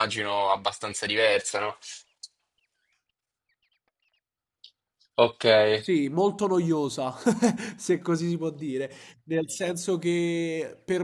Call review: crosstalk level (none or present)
none